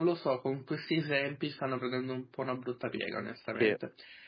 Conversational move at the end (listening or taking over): listening